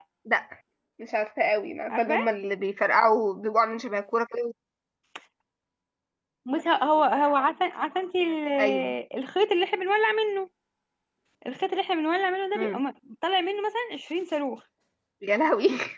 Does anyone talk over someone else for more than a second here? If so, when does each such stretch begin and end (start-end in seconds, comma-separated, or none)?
none